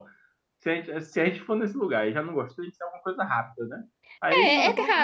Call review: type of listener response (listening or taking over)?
taking over